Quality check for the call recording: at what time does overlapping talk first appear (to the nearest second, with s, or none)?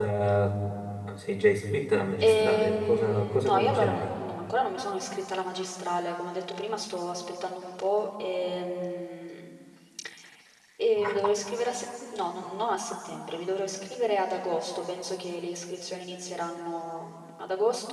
2 s